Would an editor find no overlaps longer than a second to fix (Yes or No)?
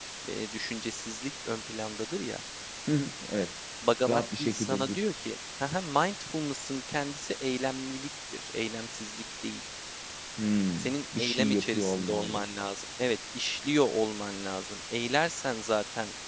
No